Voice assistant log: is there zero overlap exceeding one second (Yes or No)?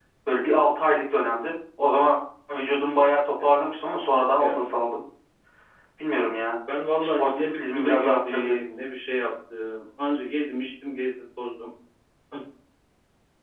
No